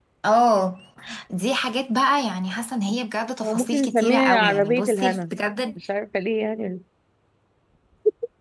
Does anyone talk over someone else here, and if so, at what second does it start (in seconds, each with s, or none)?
3.4 s